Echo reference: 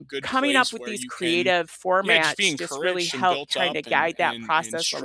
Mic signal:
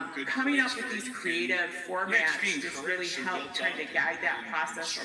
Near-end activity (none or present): none